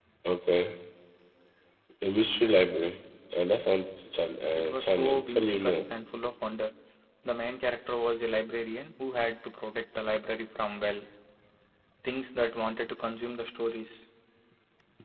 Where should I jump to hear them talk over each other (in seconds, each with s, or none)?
4.5 s